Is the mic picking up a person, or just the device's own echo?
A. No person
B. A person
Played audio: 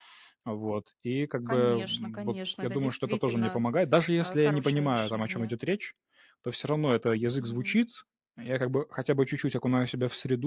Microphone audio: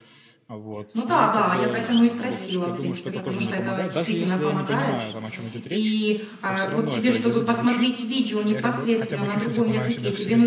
B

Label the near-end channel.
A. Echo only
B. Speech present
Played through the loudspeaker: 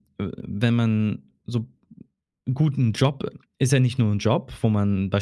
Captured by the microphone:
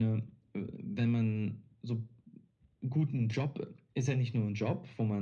A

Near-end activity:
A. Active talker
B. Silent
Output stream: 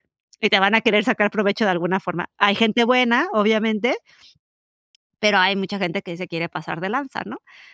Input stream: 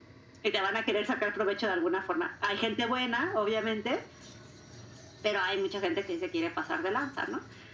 B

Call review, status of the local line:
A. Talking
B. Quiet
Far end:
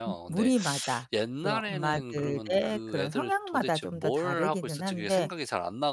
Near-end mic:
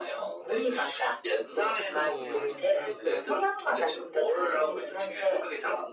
A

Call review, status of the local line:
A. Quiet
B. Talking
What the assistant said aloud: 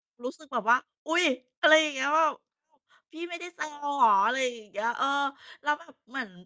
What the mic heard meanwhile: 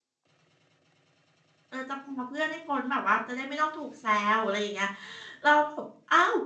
B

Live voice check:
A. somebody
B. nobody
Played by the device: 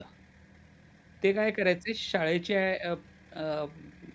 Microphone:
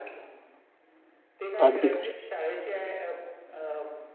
A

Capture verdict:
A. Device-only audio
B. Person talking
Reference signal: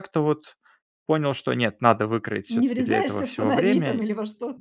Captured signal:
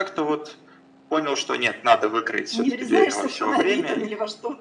A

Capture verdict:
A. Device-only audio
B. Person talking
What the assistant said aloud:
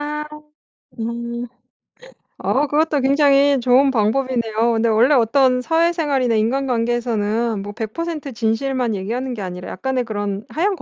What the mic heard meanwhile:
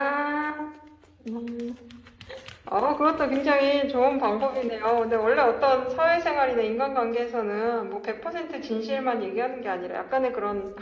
A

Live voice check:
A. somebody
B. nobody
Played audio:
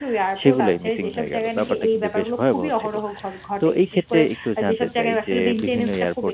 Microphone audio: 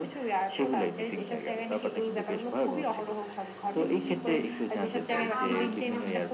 A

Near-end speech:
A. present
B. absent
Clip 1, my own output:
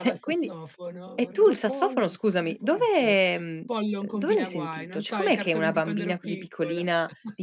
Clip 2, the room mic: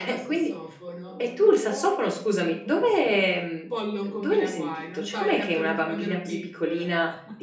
B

